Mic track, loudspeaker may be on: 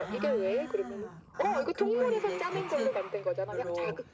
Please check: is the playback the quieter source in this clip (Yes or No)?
No